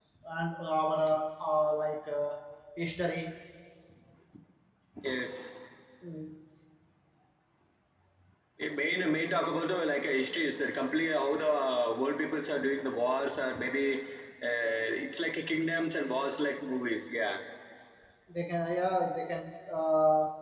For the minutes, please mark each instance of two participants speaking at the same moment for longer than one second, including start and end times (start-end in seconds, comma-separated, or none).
none